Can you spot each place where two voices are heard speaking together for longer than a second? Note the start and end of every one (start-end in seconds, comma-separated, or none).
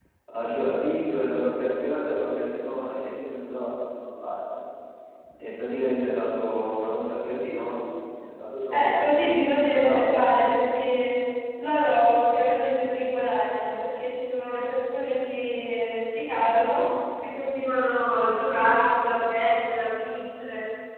8.7-10.2